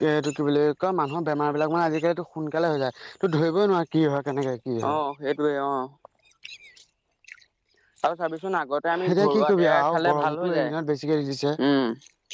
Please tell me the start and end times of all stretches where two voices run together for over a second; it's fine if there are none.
9.1-10.7

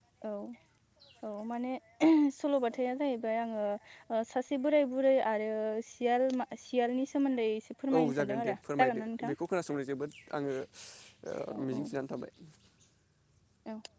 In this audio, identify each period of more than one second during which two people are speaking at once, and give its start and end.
8.0-9.4

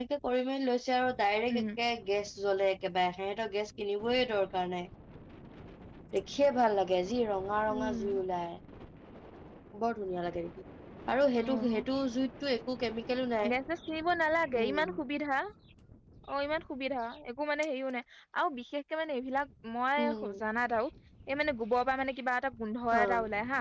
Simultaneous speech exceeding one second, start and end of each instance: none

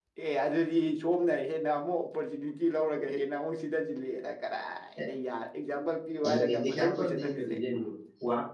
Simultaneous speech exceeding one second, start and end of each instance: 6.3-7.6

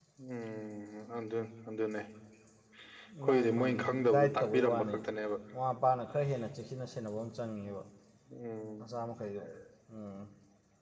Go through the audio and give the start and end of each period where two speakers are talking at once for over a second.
3.2-5.0

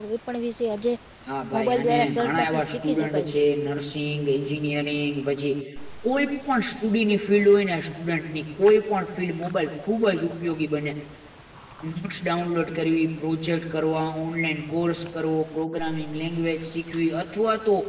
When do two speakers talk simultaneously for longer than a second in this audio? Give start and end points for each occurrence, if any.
1.5-3.4

